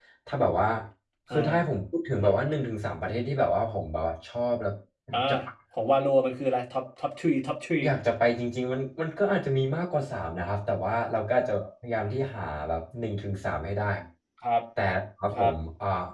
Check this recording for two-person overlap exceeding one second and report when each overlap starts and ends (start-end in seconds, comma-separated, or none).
none